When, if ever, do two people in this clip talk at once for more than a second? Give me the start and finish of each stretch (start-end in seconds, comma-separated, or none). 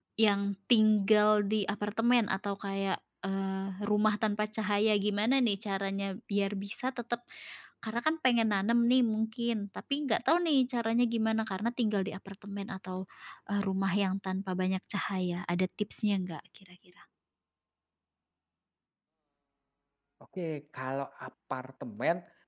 none